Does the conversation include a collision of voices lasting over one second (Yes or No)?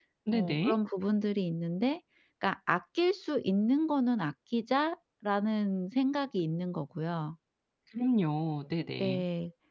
No